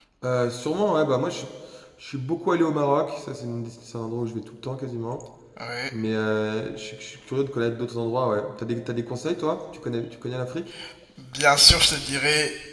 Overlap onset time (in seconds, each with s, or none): none